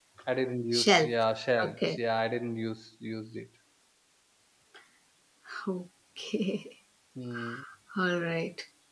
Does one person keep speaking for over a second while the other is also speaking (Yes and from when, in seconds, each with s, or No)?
No